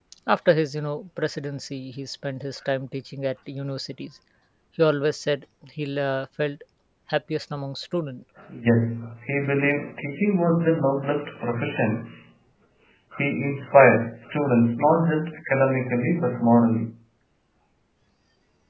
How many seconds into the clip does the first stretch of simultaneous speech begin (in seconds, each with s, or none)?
none